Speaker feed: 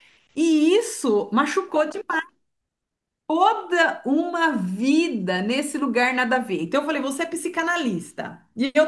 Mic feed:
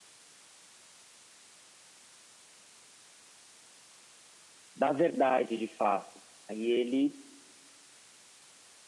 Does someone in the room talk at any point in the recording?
Yes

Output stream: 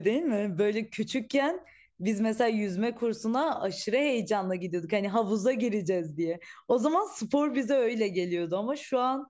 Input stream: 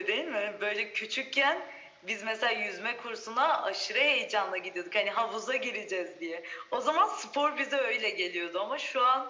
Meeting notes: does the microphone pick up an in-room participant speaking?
No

